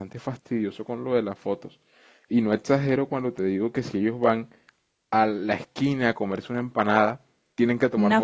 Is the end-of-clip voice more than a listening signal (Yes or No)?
No